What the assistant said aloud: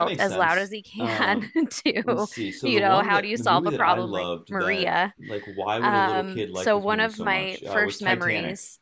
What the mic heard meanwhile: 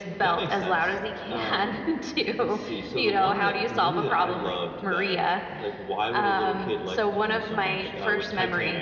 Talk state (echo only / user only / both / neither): echo only